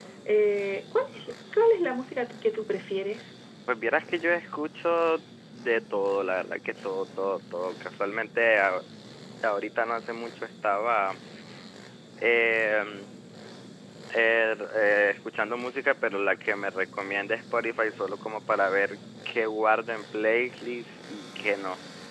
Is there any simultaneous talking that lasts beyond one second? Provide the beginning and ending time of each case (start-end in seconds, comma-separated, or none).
none